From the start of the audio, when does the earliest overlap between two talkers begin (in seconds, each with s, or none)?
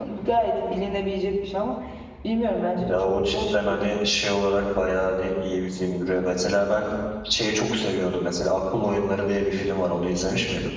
2.8 s